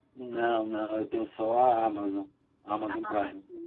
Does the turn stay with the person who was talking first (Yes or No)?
No